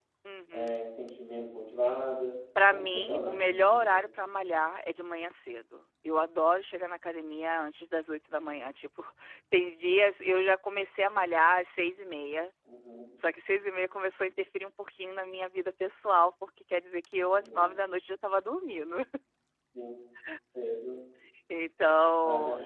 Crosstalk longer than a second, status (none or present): present